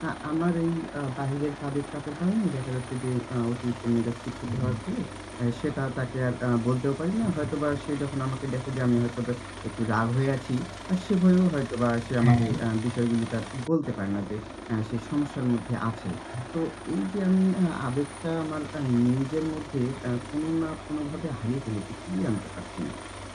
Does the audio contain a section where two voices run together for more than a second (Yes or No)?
No